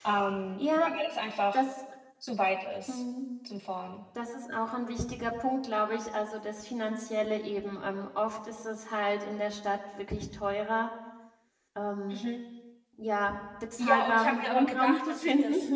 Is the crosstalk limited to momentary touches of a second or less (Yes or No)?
No